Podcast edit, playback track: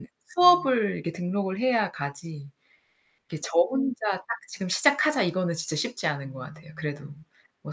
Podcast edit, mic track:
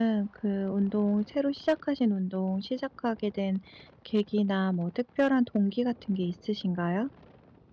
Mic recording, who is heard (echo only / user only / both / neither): user only